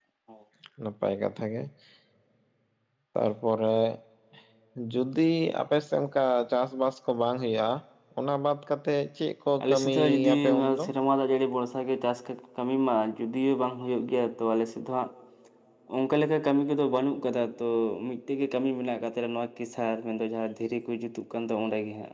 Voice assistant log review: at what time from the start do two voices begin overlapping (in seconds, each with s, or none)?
9.6 s